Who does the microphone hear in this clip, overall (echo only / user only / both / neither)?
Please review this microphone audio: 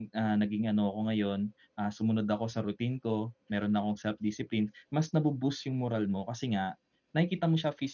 user only